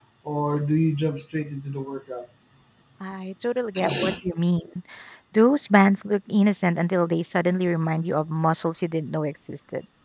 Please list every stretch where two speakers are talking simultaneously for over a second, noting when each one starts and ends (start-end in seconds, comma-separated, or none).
none